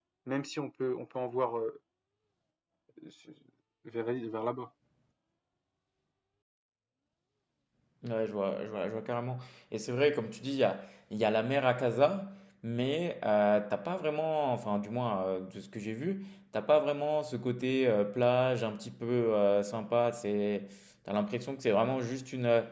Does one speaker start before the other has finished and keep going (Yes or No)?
No